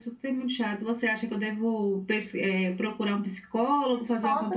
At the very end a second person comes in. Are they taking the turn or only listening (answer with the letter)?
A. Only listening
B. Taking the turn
B